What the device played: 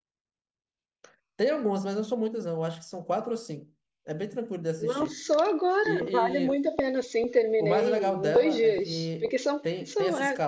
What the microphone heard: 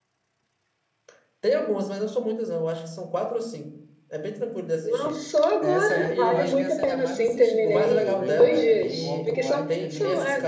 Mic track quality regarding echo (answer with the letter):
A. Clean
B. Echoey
B